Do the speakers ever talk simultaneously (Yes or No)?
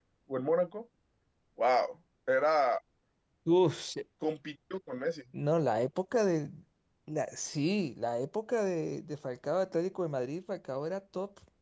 No